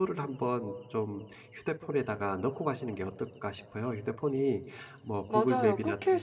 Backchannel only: No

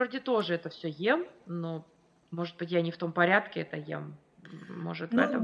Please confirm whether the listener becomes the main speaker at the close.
Yes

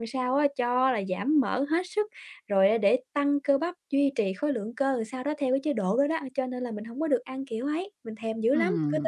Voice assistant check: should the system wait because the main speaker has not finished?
No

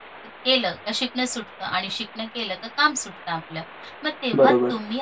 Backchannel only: Yes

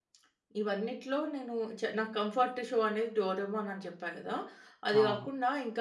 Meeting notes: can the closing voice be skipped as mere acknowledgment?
Yes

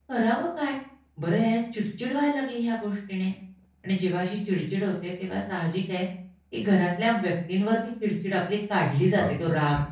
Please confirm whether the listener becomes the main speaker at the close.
Yes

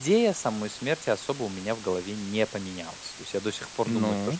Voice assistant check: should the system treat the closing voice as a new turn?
No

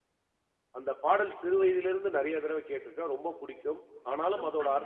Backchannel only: Yes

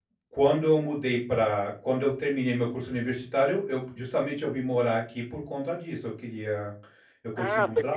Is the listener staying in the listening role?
No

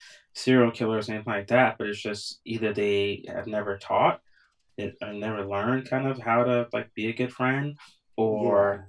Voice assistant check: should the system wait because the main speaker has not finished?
Yes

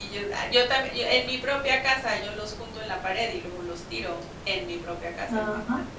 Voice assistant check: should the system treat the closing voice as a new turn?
Yes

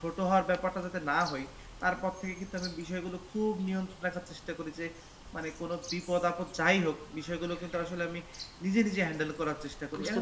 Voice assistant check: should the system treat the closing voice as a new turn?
No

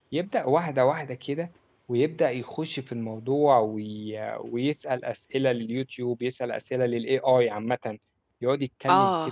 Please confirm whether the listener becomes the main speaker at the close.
No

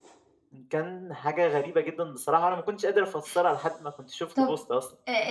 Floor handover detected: Yes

